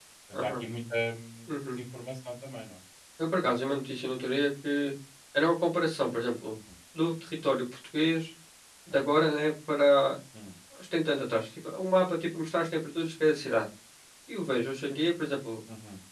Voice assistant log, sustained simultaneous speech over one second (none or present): none